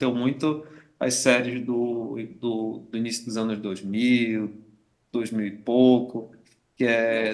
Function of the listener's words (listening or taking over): listening